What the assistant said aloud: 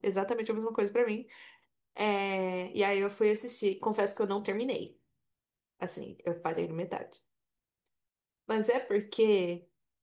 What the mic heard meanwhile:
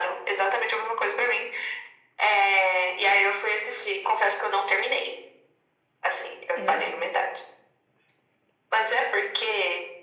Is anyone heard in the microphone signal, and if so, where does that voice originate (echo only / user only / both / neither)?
both